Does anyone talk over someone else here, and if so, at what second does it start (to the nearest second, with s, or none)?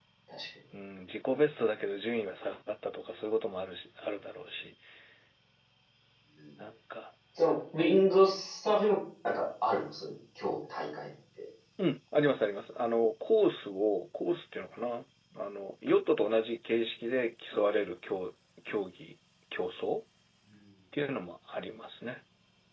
none